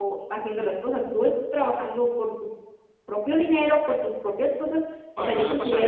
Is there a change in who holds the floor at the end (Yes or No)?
Yes